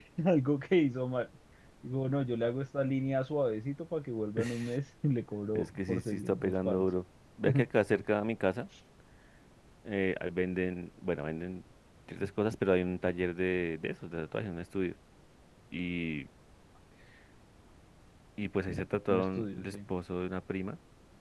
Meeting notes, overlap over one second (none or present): present